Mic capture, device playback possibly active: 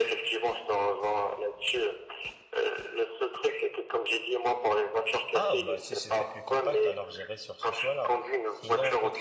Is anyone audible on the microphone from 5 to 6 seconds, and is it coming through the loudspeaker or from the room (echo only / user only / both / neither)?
both